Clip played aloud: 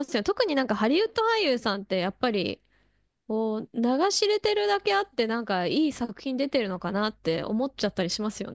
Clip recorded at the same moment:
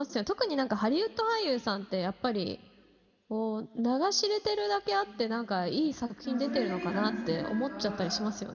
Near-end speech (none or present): present